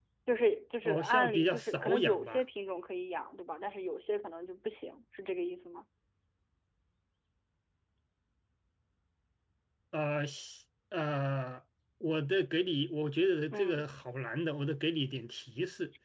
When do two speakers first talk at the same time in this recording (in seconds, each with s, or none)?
0.8 s